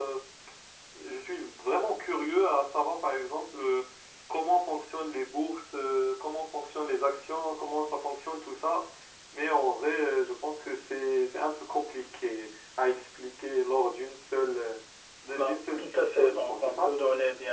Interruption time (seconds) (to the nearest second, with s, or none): 15 s